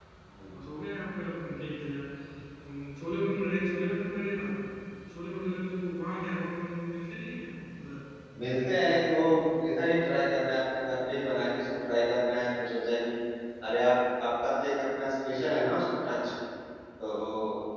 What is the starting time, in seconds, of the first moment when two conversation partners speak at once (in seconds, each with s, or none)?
none